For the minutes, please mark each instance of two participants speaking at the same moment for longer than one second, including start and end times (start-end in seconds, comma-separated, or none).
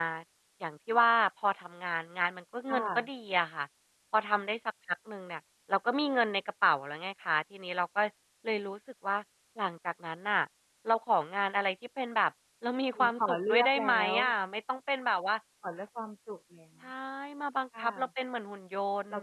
12.9-14.2